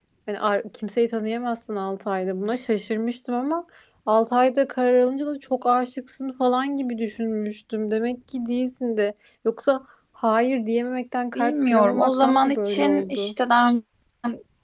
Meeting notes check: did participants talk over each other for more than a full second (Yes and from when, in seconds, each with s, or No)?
Yes, from 11.3 s